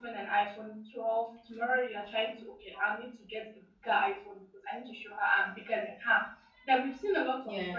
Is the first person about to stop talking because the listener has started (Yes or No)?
No